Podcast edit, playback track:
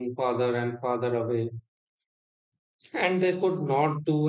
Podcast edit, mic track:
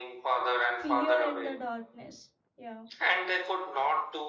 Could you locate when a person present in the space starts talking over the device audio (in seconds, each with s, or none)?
0.7 s